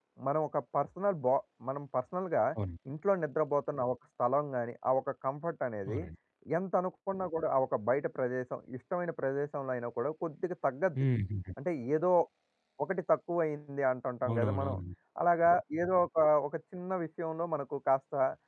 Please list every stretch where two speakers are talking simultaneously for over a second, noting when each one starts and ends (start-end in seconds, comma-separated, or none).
none